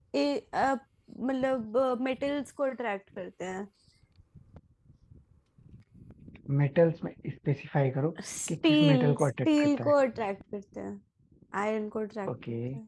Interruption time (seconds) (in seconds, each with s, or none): 8.5 s